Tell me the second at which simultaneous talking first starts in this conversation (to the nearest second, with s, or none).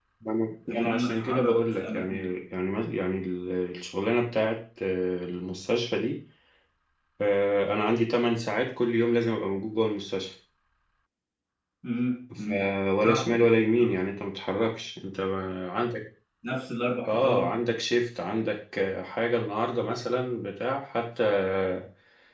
1 s